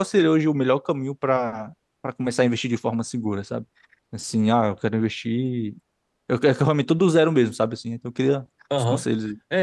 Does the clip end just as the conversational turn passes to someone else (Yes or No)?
Yes